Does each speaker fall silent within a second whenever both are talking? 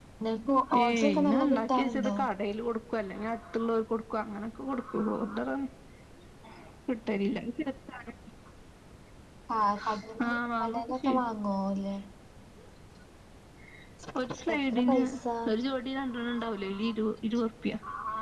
No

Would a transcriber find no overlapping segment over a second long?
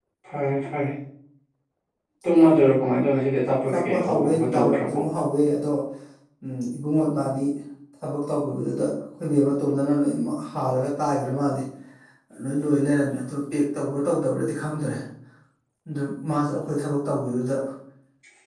No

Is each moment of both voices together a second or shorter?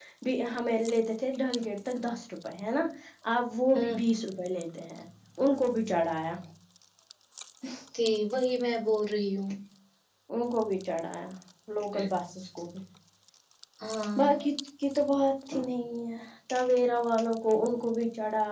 Yes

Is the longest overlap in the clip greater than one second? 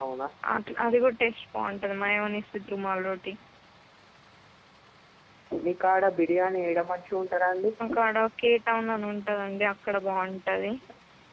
No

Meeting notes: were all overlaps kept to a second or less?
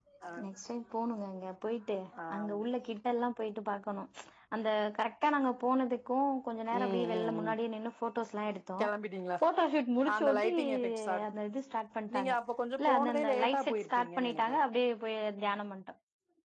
No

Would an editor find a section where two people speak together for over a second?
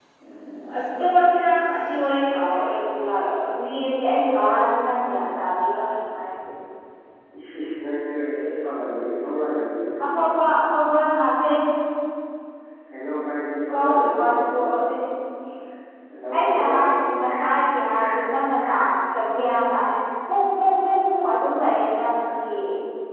Yes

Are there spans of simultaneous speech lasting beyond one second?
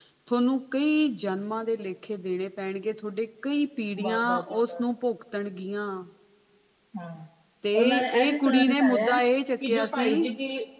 Yes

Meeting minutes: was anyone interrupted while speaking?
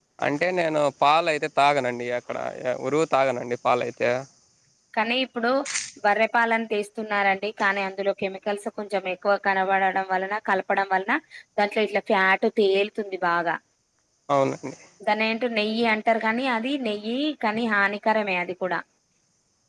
No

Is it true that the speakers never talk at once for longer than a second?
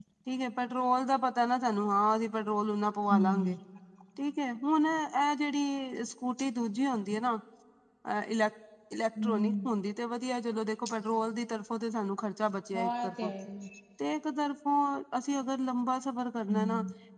Yes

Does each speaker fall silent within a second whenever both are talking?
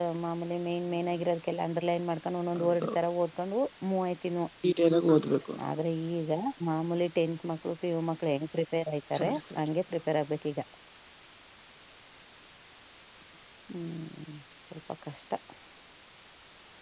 Yes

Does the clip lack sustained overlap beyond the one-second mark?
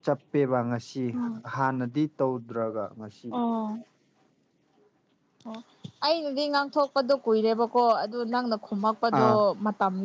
Yes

